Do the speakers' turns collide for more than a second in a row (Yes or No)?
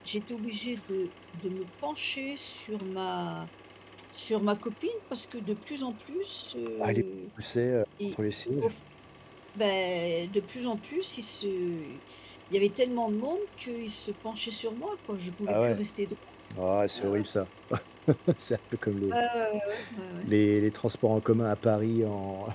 No